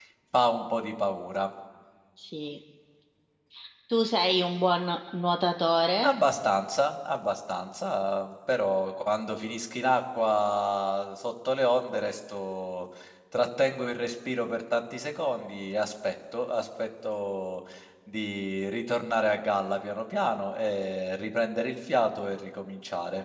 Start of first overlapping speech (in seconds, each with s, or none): none